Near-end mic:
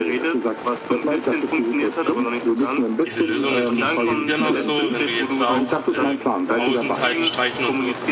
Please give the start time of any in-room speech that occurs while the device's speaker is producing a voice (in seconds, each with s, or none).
2.0 s